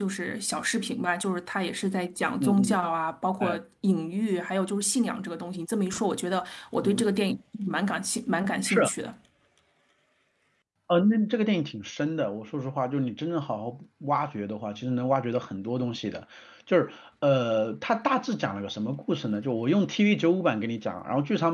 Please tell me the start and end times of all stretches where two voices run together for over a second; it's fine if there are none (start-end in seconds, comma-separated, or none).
none